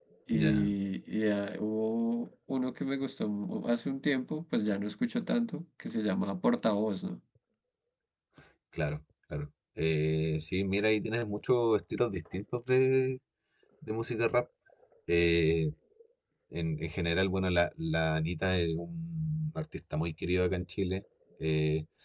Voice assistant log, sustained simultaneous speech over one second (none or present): none